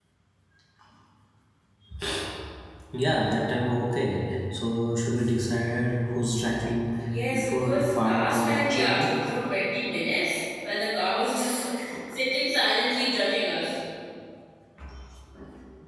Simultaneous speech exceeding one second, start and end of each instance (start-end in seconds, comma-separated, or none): 7.3-9.1